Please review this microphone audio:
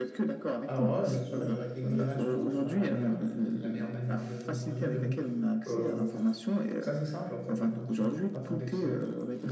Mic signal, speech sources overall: both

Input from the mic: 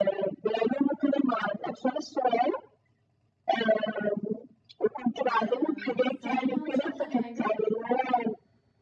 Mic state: both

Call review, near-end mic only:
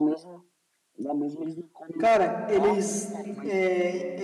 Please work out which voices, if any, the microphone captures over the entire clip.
both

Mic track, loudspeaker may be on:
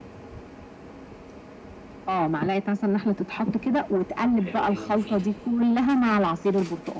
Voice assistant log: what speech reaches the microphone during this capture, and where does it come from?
both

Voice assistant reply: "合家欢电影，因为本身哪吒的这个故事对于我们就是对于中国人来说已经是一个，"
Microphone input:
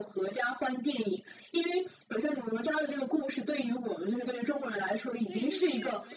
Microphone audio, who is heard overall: both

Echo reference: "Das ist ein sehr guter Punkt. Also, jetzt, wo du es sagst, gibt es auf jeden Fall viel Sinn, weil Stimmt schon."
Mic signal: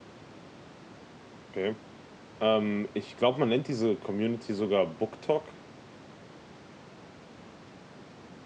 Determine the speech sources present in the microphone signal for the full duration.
user only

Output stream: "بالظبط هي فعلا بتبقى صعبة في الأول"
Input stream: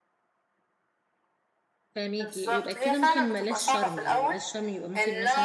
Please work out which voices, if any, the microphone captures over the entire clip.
both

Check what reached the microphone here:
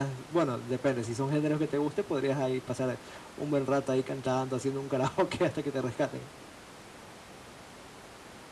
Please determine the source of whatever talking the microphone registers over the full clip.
user only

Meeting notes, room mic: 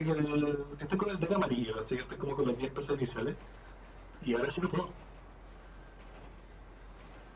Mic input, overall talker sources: echo only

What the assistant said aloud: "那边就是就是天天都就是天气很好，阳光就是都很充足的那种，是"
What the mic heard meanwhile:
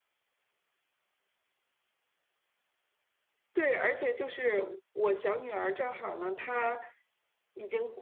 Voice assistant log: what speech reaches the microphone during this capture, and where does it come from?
user only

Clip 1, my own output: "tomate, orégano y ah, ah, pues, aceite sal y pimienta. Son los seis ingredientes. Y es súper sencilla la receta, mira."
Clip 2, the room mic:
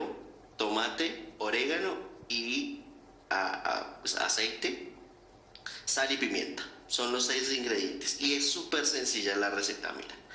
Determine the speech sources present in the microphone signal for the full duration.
echo only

